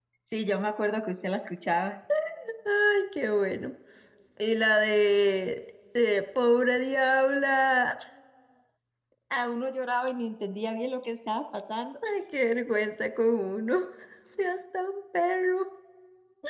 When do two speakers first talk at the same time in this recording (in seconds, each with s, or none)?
none